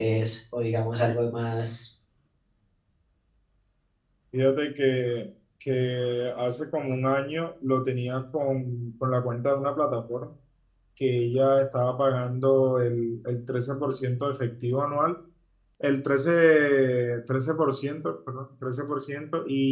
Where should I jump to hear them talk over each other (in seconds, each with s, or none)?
none